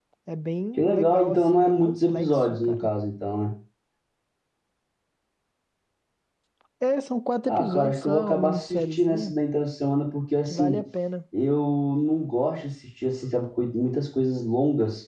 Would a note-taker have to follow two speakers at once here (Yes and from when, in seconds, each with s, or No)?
Yes, from 0.8 s